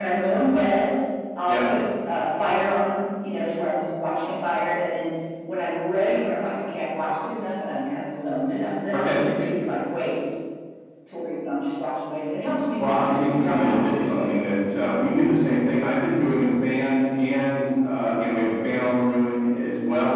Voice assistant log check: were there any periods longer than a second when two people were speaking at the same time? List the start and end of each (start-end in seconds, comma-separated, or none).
12.8-14.3